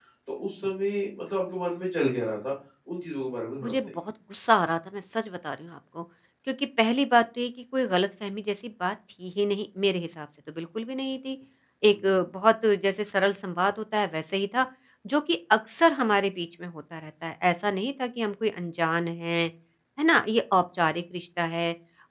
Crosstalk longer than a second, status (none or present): none